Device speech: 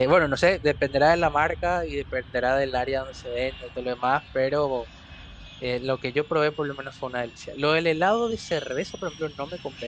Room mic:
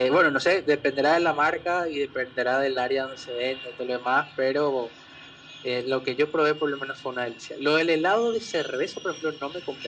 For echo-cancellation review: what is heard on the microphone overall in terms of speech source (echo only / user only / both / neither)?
echo only